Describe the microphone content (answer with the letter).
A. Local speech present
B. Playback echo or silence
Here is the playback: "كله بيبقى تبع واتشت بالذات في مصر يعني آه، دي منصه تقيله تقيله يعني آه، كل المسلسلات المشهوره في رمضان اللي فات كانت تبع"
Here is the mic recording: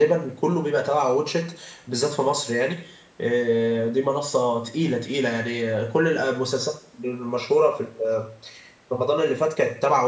B